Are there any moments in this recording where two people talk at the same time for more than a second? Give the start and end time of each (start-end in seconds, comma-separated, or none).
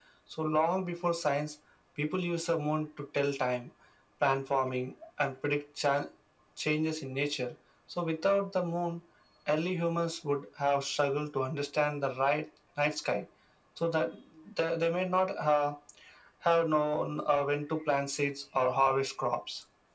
none